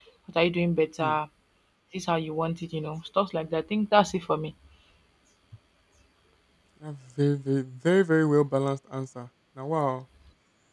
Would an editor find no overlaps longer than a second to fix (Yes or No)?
Yes